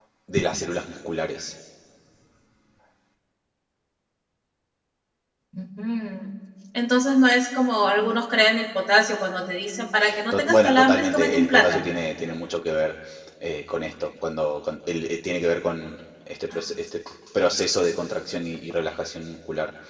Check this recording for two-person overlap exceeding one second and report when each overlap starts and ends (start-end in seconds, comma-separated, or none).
10.3-11.9